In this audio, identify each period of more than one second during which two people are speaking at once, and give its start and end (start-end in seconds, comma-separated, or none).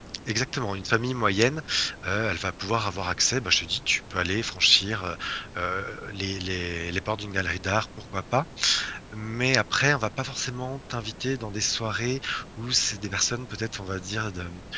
none